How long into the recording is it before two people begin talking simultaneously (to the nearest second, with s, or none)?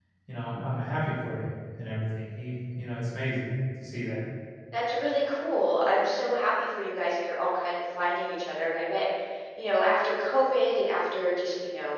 none